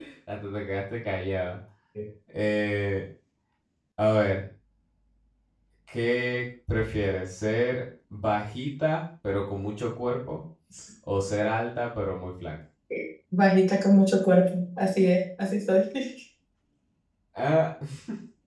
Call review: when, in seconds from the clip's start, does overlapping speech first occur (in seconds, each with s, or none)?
none